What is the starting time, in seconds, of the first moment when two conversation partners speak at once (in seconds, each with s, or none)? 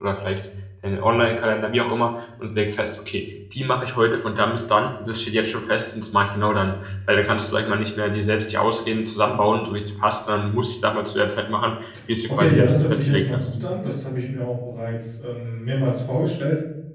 12.3 s